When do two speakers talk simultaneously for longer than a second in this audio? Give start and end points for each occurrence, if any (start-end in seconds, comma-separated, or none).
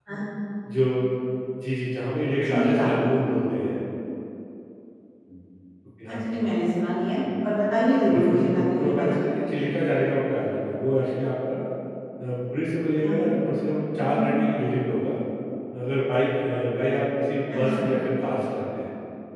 8.1-9.4